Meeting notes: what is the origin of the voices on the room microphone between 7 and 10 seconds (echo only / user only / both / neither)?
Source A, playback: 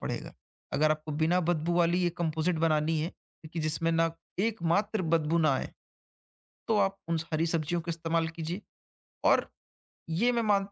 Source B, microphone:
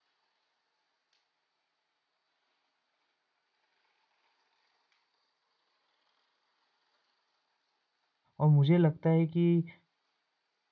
user only